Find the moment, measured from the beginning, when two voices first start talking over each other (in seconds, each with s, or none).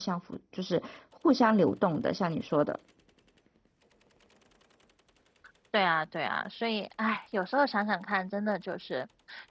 none